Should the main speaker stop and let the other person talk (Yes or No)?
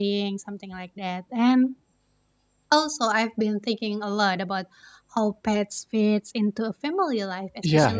No